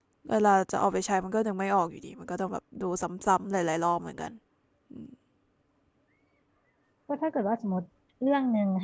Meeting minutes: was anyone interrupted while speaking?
No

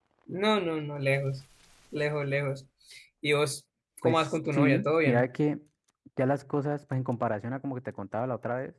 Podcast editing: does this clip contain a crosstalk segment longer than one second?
Yes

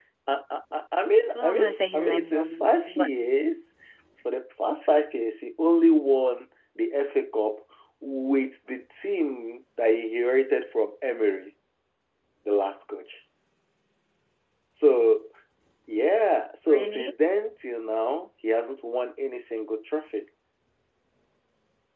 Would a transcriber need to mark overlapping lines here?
Yes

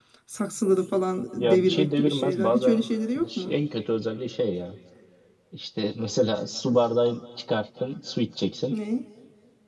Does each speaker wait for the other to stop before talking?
No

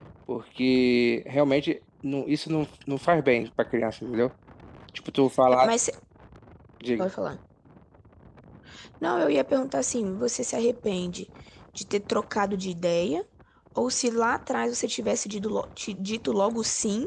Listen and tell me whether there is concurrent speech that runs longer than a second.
No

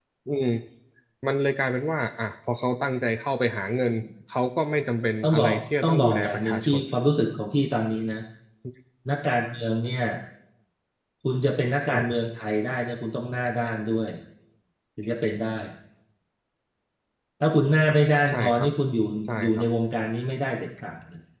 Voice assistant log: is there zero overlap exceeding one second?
No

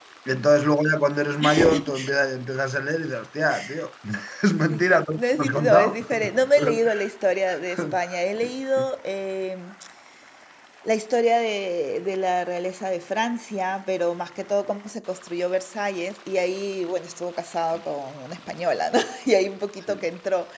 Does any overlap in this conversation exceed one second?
Yes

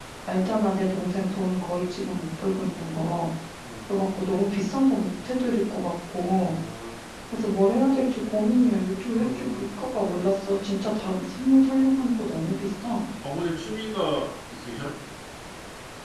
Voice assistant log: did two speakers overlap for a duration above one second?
No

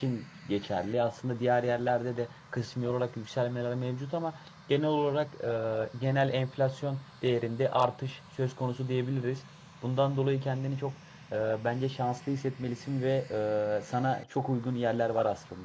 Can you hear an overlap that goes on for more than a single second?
No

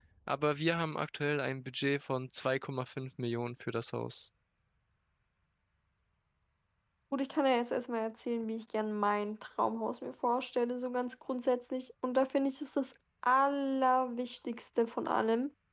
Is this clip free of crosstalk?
Yes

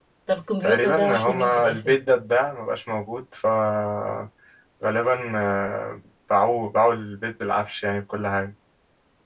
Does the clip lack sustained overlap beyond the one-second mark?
No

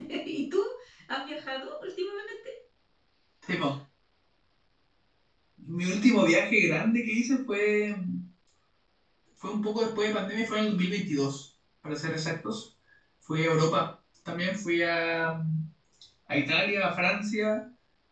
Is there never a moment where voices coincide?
Yes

